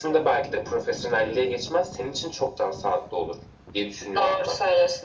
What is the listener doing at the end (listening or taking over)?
taking over